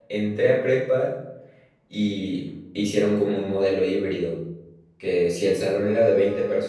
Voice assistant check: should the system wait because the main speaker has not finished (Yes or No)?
Yes